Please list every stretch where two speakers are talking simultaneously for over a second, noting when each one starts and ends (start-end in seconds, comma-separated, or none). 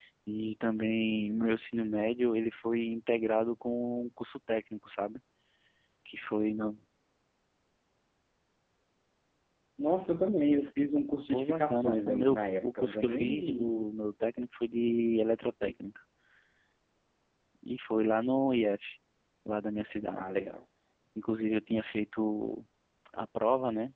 11.3-13.9